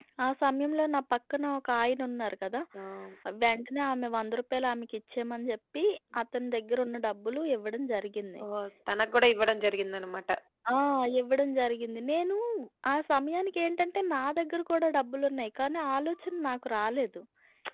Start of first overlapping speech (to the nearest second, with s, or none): none